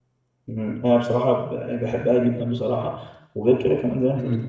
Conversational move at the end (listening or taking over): listening